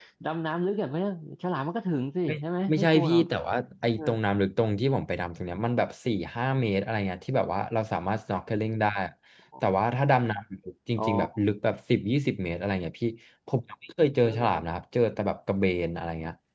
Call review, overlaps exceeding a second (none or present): none